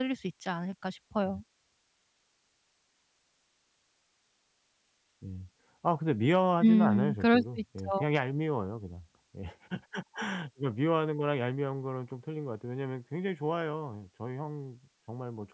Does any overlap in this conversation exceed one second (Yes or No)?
Yes